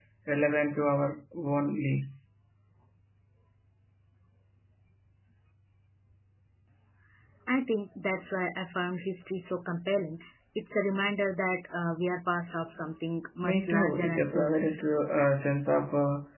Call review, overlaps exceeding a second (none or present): present